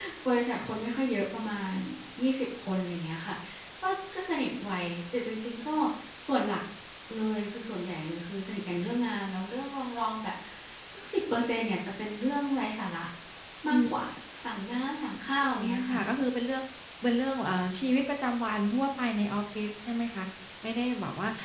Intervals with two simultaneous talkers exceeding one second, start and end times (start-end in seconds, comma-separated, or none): none